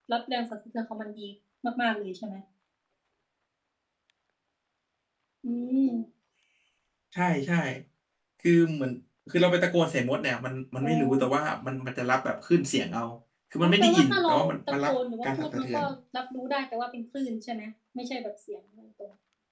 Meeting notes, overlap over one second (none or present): present